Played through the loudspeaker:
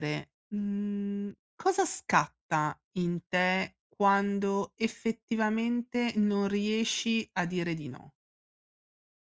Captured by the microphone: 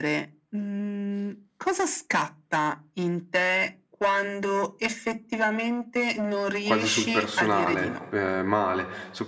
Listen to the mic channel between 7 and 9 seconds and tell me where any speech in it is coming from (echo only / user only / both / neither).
both